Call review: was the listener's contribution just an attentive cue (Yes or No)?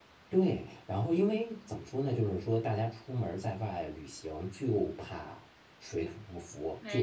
Yes